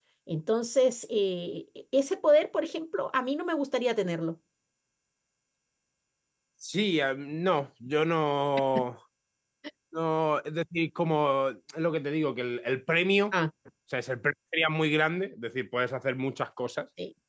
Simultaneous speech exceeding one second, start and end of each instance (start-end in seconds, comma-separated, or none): none